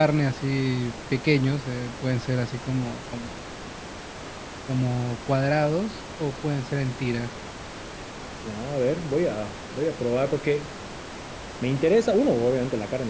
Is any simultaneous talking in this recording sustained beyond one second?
No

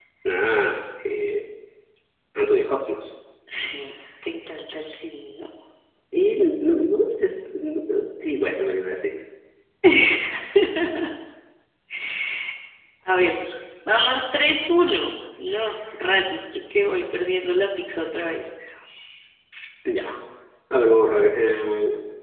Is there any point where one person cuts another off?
No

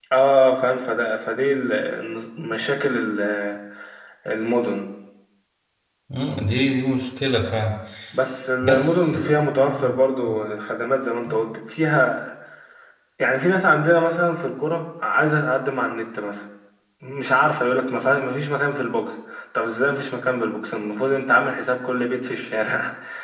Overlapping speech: Yes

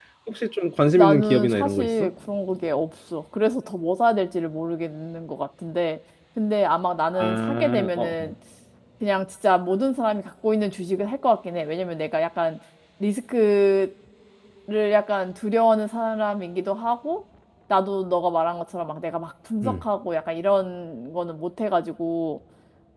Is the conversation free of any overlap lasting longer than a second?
No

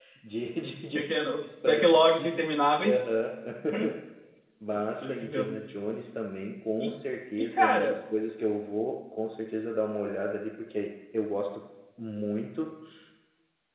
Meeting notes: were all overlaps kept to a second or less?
No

